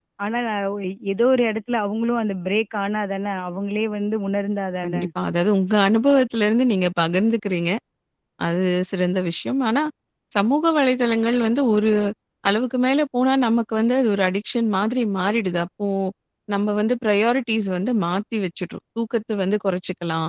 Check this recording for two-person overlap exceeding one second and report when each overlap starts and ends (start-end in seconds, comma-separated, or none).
none